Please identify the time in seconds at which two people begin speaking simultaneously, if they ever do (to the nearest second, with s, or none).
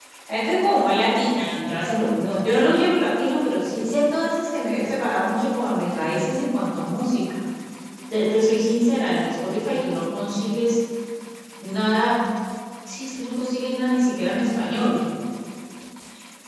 none